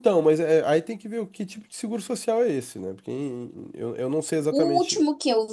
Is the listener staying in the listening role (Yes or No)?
No